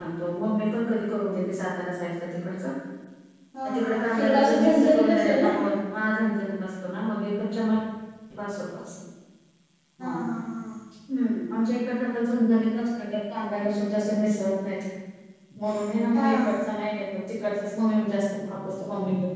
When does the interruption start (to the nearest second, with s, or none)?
4 s